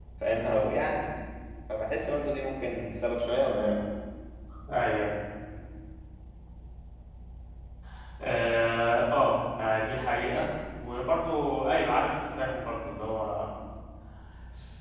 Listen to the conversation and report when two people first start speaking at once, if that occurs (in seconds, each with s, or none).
none